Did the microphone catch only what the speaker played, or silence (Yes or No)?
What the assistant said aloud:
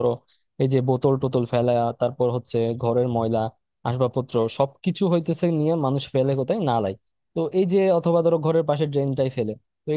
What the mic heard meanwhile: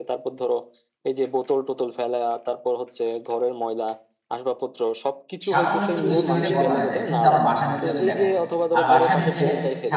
No